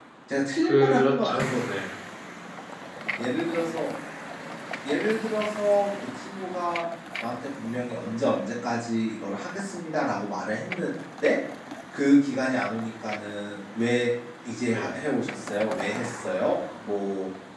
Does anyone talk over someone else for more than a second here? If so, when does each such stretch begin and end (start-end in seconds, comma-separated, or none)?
0.6-1.8